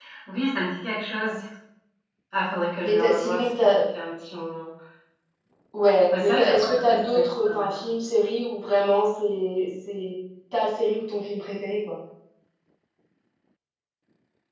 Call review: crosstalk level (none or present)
present